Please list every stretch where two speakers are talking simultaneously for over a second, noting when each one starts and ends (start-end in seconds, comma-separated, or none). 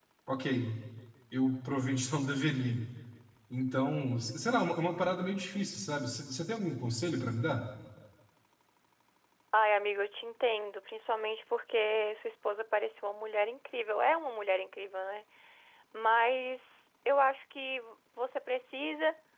none